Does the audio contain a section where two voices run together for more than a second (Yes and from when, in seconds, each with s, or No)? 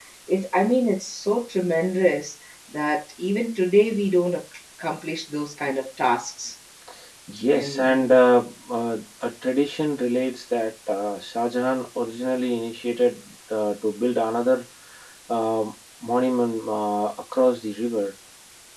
No